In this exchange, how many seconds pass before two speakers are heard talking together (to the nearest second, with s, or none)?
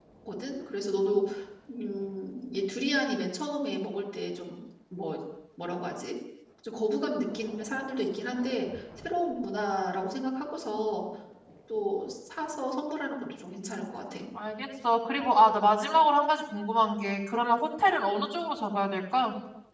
none